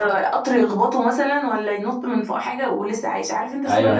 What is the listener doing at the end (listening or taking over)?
taking over